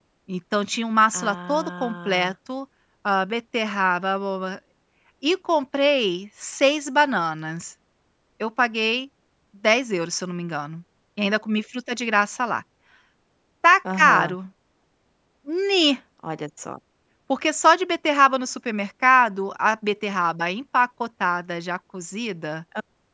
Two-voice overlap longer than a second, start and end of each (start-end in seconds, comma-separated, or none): 1.1-2.3